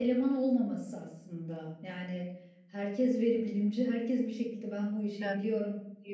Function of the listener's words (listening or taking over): listening